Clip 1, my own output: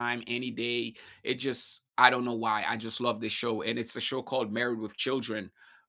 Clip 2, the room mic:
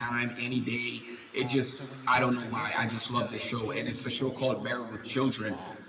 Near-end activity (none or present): present